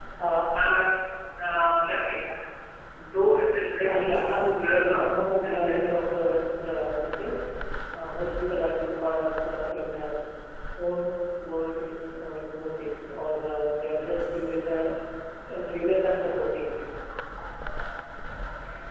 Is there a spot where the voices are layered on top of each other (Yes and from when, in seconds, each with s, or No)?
Yes, from 3.8 s